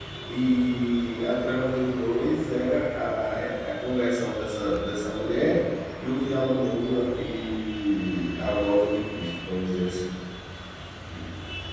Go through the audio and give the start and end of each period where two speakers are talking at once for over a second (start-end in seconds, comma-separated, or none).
none